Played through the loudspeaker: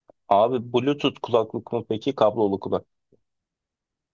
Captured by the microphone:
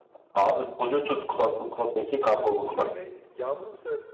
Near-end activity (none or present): present